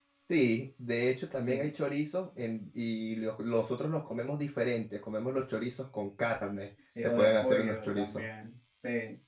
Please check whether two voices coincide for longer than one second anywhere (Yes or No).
Yes